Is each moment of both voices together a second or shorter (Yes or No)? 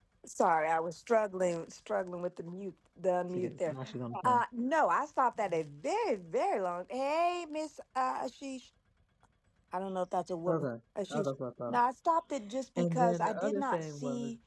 No